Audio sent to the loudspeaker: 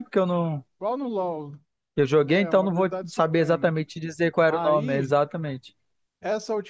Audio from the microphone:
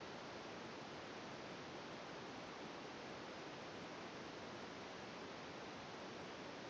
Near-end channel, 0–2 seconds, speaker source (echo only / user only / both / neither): neither